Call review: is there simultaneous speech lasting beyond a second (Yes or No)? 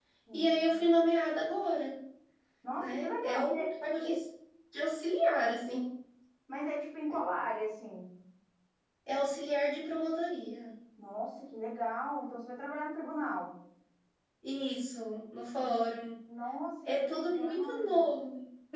Yes